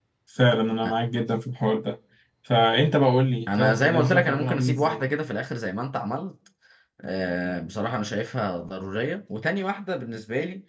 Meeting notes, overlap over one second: present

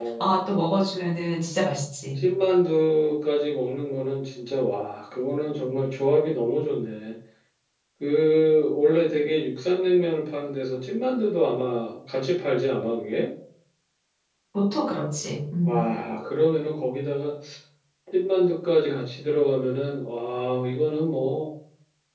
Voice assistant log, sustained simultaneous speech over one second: none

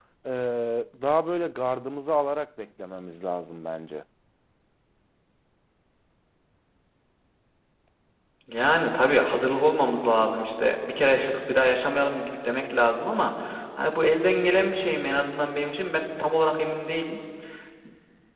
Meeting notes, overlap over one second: none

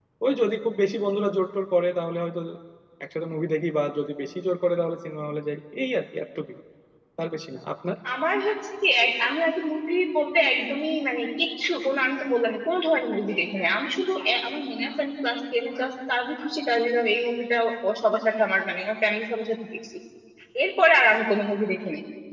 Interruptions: none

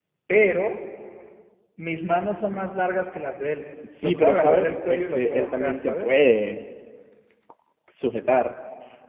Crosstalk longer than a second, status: present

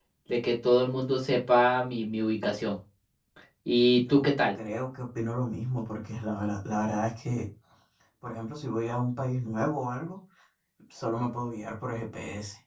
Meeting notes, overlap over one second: none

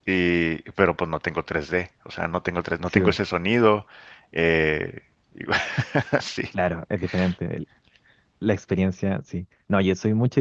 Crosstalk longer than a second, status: none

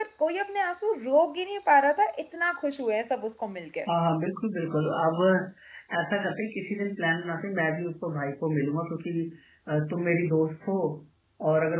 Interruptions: none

